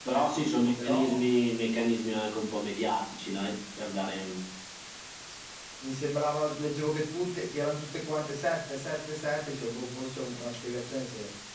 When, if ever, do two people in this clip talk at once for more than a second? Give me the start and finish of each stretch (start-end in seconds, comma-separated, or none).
none